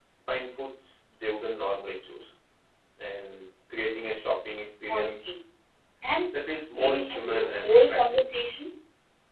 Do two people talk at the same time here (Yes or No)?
Yes